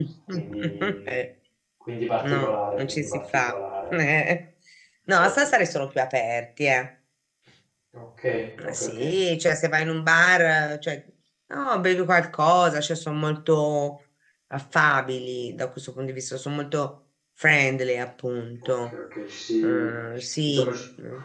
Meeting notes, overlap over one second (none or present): present